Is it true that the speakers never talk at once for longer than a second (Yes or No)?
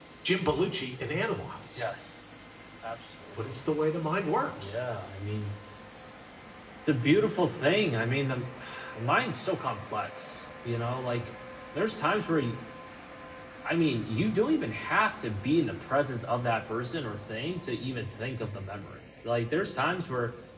Yes